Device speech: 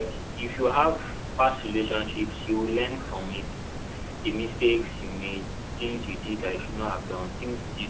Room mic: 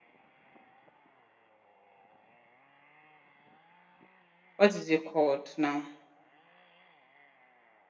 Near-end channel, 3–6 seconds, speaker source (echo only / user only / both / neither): user only